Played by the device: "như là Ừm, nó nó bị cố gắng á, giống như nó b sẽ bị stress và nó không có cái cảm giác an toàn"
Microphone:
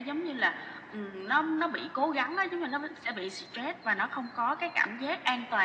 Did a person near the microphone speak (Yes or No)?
No